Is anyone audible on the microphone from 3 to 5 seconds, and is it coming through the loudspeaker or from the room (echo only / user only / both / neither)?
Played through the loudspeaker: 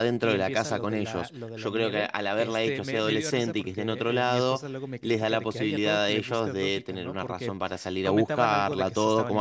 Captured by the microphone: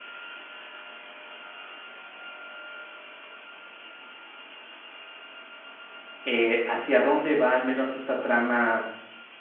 neither